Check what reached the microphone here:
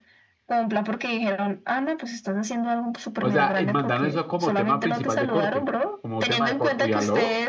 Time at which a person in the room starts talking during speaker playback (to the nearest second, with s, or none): 3 s